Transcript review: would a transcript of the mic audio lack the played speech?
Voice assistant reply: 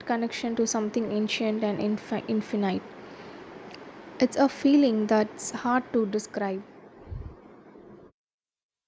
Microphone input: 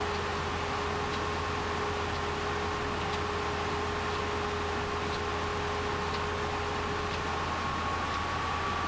Yes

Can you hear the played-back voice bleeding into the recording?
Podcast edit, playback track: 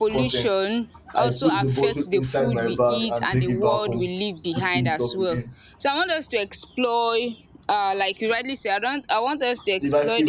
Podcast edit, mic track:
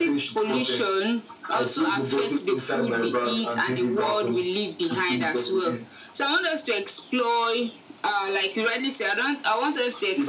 Yes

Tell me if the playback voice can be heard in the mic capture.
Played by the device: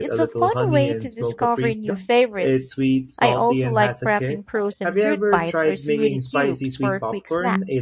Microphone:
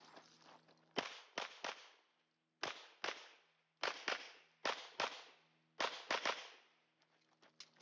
No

